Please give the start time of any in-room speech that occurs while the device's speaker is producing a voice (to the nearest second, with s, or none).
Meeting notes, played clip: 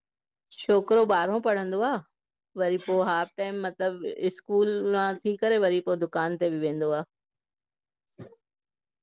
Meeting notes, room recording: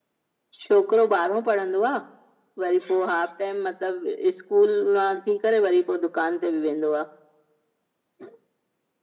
none